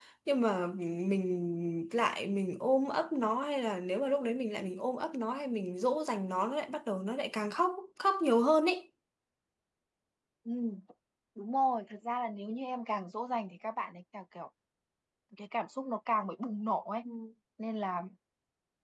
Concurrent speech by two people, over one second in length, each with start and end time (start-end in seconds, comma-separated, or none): none